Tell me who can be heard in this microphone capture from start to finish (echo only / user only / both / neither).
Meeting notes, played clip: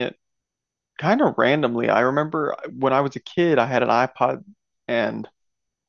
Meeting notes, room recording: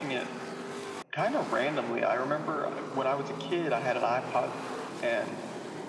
echo only